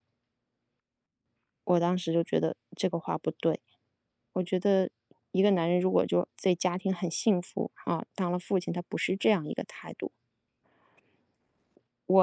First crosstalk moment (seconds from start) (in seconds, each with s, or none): none